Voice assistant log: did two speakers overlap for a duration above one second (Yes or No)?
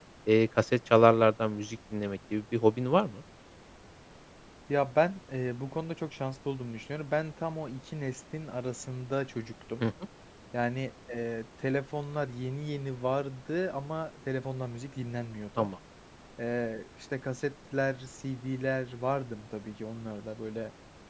No